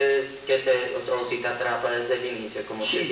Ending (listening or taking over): taking over